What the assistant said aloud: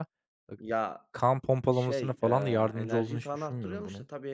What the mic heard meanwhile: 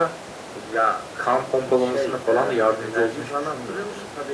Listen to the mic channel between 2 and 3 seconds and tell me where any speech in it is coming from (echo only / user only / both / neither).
echo only